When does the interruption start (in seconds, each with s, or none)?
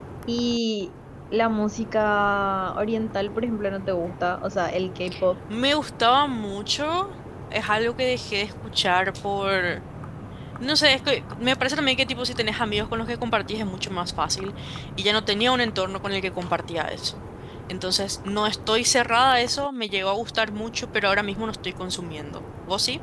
none